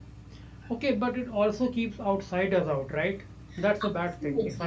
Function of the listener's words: taking over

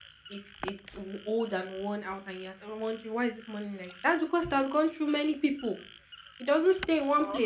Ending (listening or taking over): listening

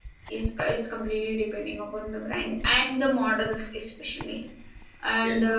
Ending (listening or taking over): listening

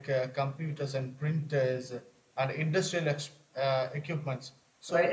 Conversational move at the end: taking over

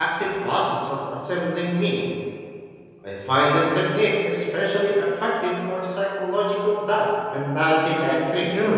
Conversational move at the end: taking over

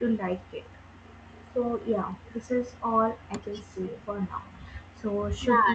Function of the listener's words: taking over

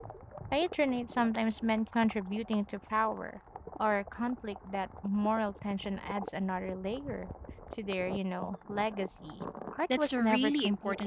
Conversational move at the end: taking over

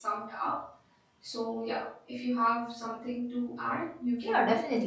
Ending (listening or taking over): taking over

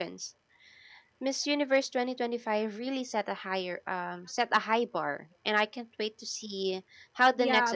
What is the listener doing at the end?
taking over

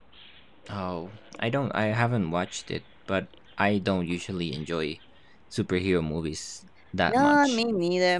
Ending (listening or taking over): taking over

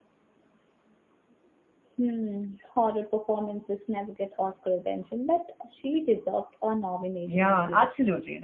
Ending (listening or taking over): taking over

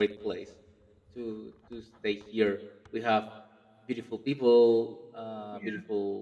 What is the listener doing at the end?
listening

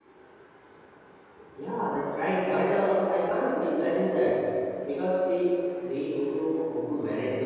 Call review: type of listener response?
taking over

